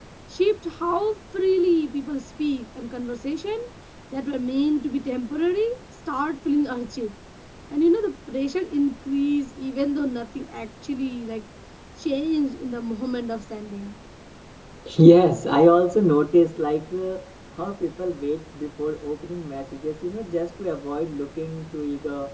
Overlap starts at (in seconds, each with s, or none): none